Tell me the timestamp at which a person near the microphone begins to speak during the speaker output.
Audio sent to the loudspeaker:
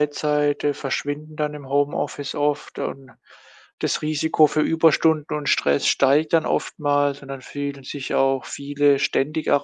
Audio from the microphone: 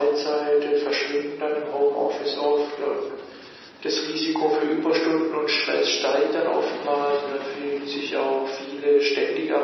none

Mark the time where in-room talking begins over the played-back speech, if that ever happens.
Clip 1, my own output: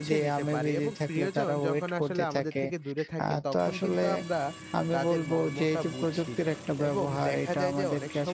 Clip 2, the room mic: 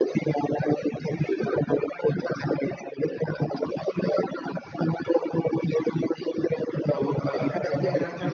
6.9 s

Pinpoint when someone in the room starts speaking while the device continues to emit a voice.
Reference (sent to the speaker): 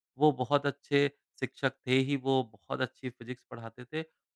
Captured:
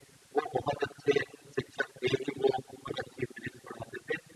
none

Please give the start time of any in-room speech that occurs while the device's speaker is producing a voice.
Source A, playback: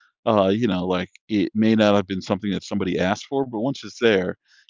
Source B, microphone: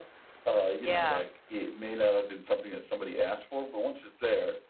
0.8 s

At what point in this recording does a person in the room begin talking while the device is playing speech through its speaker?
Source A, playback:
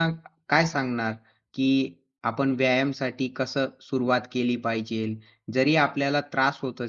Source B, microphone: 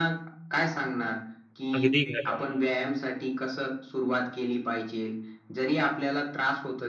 1.8 s

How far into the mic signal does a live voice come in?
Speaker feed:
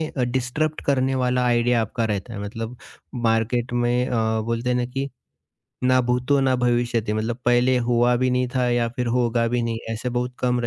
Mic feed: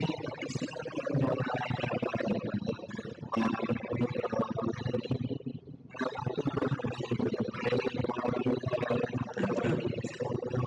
9.4 s

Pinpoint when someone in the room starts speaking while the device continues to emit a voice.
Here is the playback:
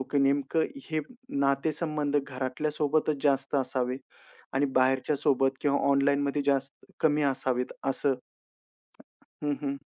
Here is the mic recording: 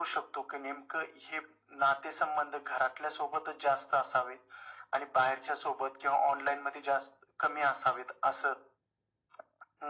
none

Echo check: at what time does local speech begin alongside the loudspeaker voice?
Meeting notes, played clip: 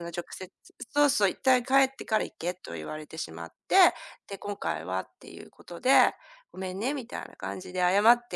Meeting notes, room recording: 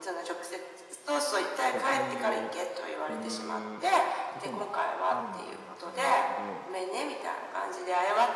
1.7 s

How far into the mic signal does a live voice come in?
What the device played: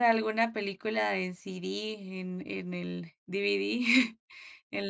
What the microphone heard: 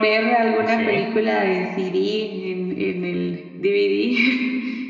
0.6 s

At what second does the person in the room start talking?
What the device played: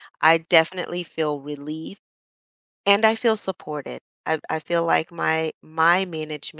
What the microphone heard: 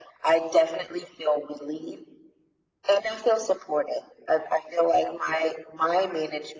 none

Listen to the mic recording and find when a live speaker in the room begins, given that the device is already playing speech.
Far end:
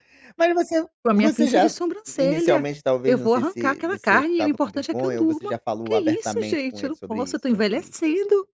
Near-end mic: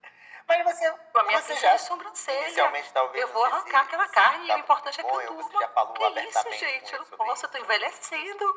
none

